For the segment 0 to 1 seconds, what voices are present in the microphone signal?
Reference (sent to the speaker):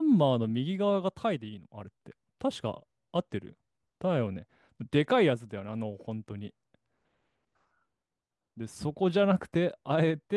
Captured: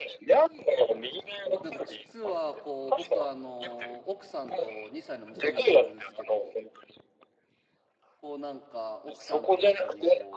echo only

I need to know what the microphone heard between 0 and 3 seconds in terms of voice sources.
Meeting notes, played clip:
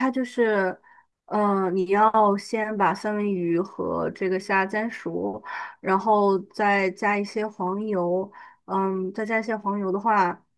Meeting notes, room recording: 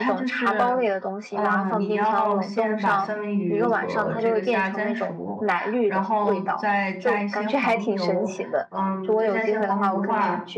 both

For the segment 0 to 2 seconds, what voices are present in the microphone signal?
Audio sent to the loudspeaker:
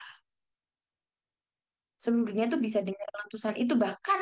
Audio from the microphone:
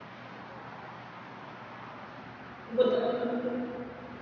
neither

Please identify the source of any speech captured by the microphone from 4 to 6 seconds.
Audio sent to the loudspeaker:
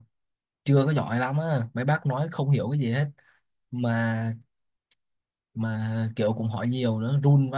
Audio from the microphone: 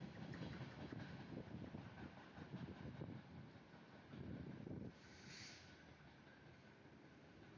neither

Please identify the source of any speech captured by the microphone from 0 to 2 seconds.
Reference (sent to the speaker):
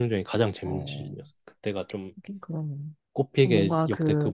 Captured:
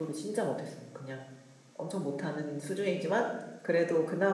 user only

